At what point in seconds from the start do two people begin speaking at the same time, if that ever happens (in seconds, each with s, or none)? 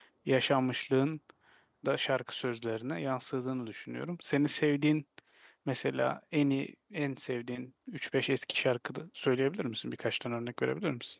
none